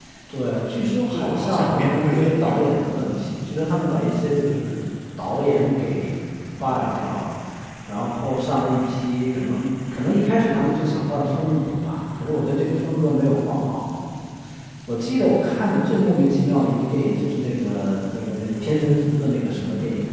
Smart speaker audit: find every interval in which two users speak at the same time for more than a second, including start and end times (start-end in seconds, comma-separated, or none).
1.1-2.8